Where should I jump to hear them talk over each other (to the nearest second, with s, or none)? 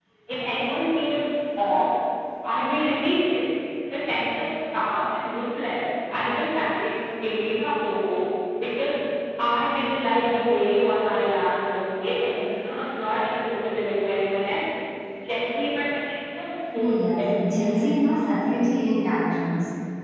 17 s